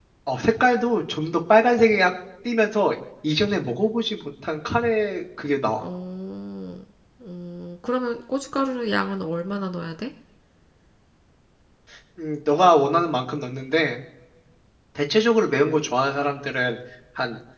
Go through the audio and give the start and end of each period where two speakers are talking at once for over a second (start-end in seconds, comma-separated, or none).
none